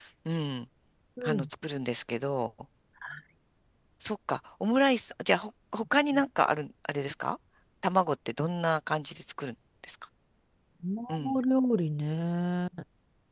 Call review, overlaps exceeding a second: none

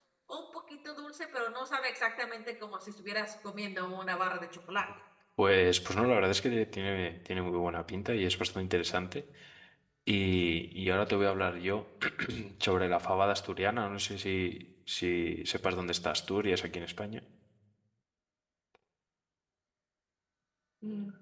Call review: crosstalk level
none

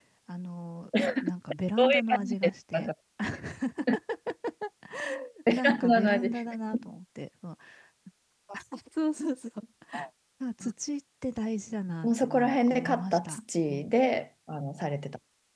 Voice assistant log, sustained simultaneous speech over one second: present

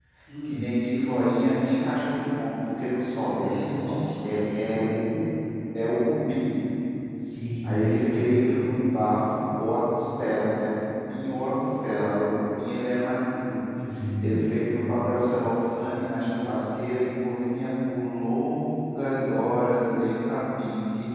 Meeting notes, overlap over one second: none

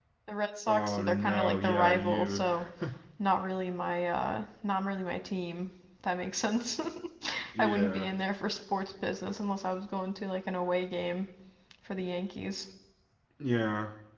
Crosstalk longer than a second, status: present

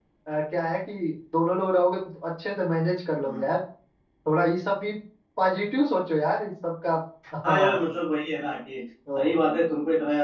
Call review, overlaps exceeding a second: none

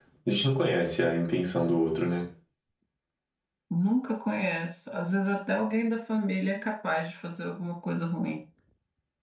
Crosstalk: none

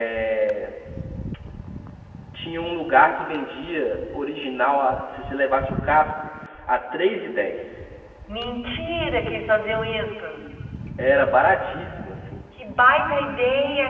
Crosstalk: none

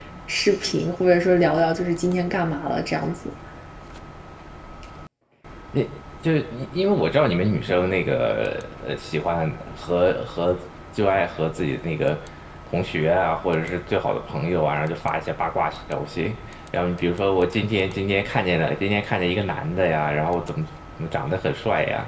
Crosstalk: none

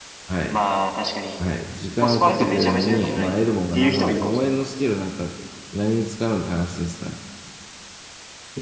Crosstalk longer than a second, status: present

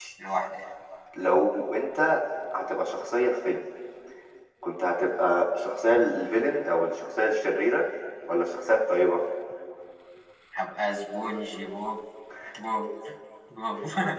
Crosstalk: none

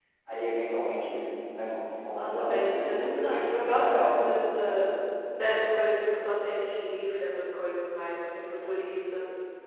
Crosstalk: present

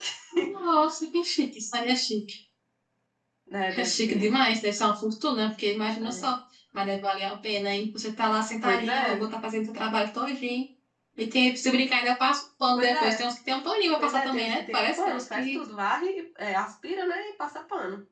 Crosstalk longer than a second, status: present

